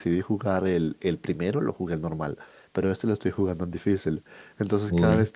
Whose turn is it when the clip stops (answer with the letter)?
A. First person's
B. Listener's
A